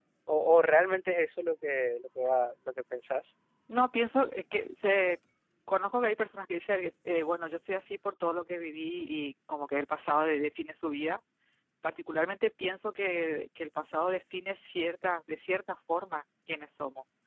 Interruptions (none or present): none